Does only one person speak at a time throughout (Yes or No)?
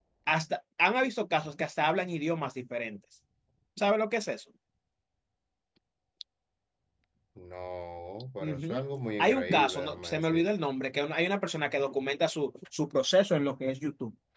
No